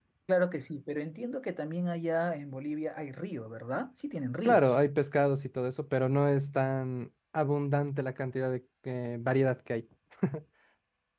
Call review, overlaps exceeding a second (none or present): none